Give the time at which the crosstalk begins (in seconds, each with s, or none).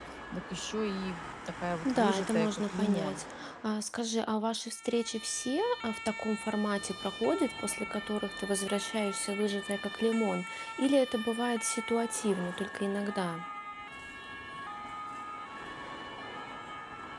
1.8 s